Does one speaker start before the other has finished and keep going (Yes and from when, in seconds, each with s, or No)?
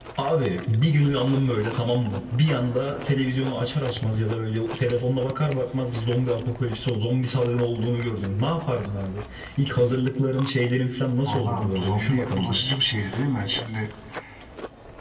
Yes, from 11.2 s